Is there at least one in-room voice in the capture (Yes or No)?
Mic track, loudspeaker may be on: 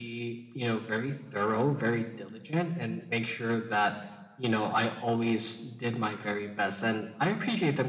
No